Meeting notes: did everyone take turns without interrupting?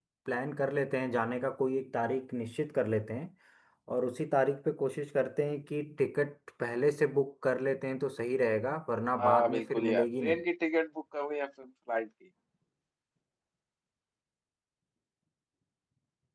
No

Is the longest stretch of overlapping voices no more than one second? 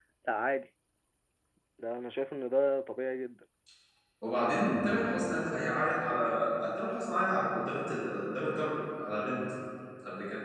Yes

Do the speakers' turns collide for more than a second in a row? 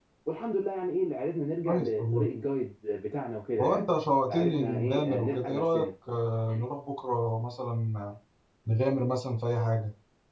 Yes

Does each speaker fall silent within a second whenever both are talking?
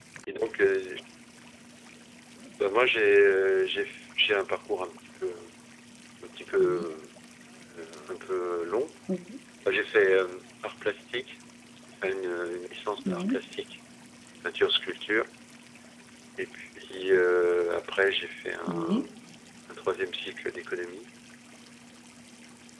Yes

